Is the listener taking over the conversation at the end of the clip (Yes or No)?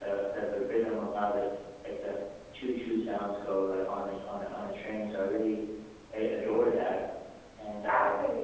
Yes